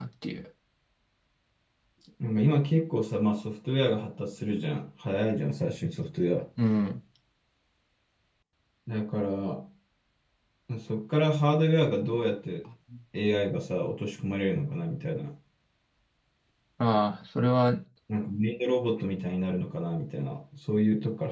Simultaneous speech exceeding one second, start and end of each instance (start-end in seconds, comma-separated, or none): none